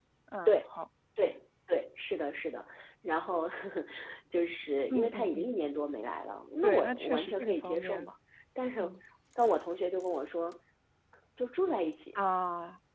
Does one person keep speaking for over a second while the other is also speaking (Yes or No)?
Yes